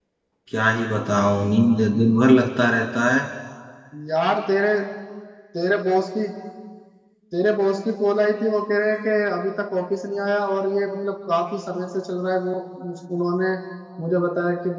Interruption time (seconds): none

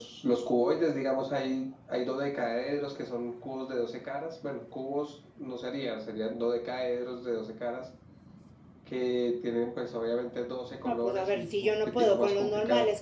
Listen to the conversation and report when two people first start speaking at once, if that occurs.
10.8 s

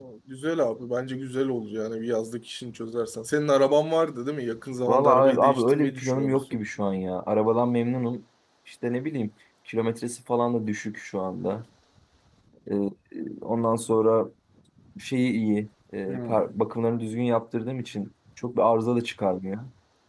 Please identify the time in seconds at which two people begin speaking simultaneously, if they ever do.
4.9 s

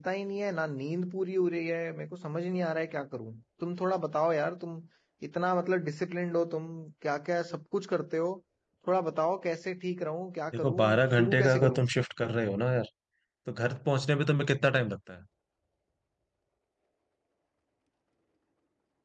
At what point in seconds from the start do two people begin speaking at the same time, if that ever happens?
10.5 s

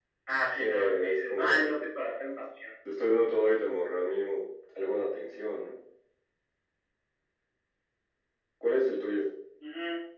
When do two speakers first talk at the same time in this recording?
0.6 s

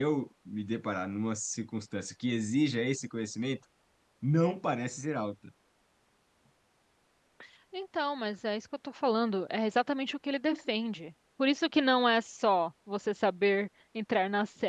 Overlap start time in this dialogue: none

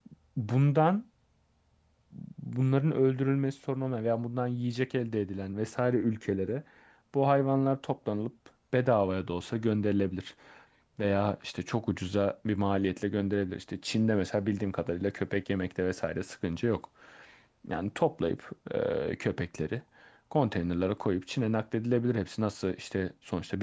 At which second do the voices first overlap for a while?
none

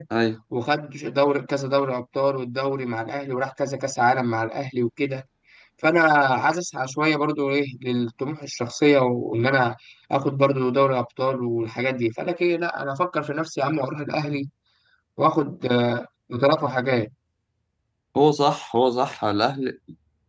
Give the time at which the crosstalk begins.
none

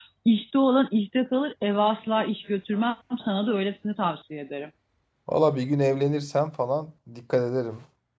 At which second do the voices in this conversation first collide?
none

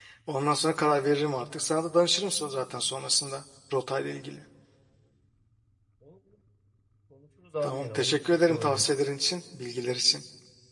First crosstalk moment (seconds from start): 7.6 s

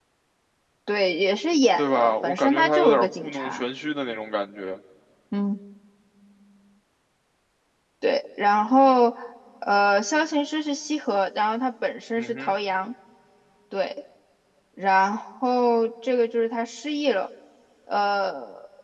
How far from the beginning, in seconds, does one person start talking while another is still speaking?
1.8 s

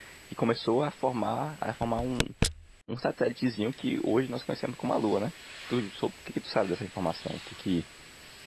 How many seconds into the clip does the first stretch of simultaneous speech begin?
none

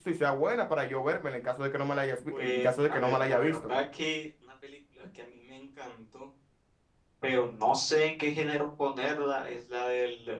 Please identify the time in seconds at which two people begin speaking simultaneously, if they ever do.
2.3 s

